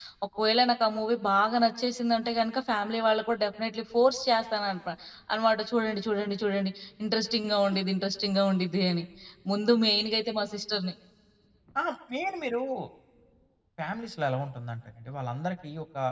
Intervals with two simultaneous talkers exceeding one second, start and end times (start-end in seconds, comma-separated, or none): none